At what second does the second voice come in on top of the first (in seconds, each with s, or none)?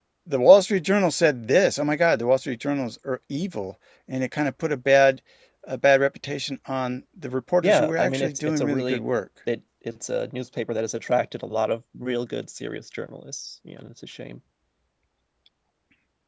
7.6 s